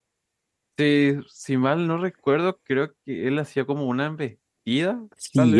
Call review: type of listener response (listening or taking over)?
taking over